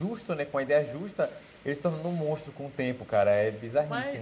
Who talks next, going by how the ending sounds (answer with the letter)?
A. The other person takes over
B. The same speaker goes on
A